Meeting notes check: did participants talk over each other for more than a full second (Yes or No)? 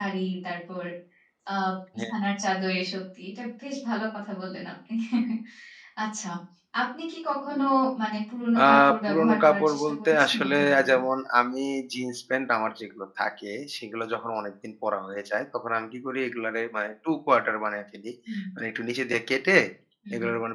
Yes